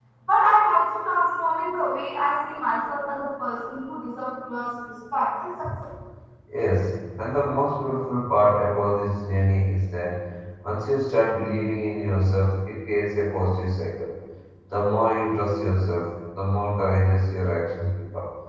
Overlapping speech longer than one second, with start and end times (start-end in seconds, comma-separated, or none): none